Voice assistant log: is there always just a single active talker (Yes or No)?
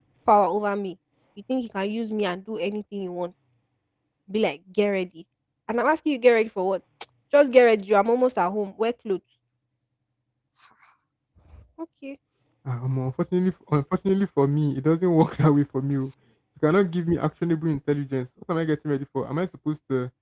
Yes